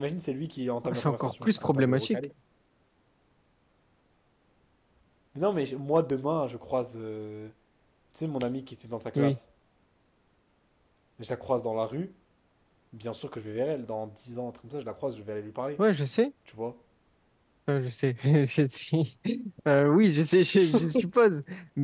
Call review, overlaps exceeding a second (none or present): present